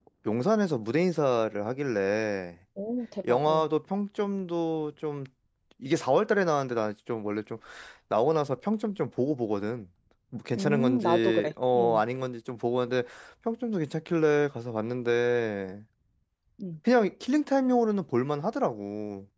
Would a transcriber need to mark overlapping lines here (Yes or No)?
Yes